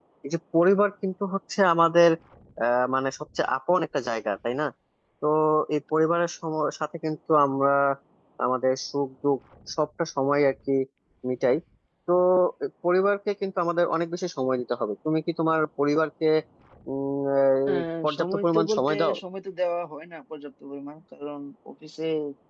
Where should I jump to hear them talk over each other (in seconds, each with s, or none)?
17.7 s